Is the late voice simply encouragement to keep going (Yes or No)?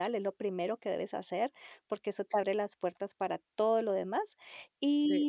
Yes